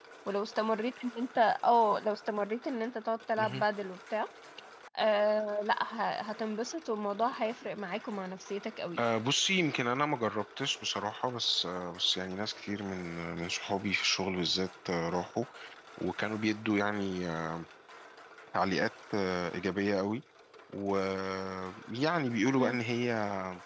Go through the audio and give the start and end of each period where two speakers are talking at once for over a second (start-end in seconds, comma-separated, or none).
none